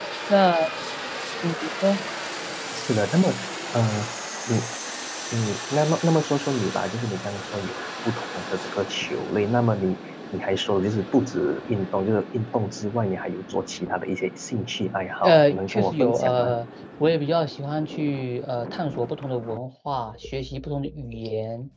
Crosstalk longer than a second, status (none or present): present